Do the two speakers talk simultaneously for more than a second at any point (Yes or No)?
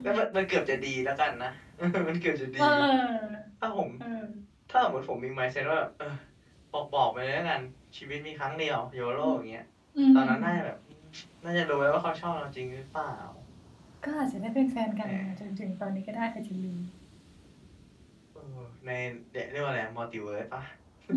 No